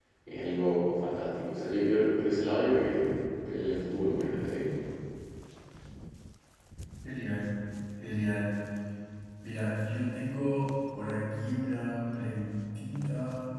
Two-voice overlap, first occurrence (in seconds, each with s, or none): none